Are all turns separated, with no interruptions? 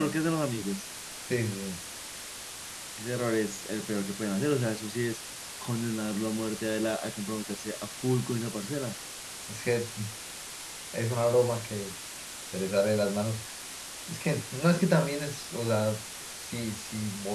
Yes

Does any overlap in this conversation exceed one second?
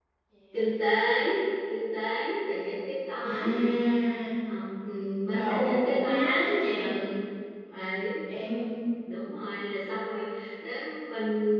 Yes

